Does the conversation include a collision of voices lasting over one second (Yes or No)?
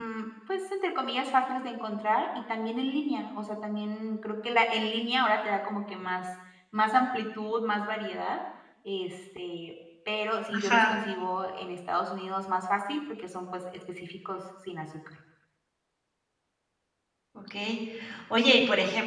No